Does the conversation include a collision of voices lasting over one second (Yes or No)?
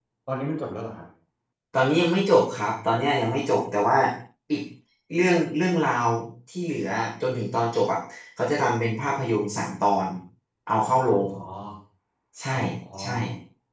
No